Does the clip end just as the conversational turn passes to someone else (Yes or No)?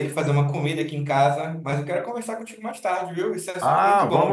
Yes